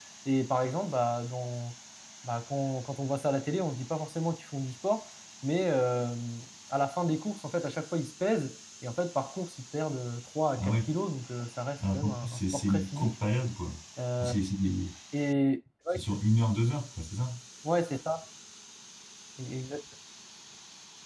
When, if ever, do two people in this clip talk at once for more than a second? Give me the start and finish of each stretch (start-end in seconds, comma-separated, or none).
11.8-13.1